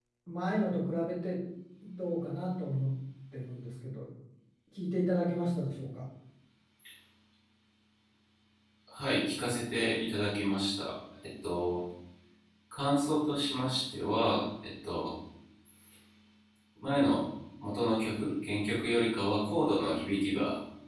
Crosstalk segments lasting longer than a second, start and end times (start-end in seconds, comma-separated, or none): none